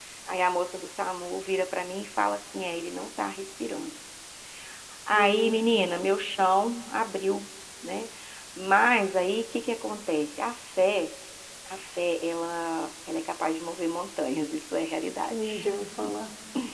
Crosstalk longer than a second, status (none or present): none